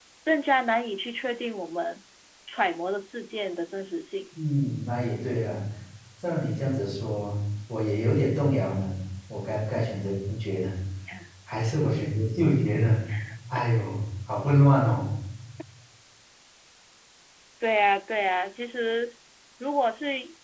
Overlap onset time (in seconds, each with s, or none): none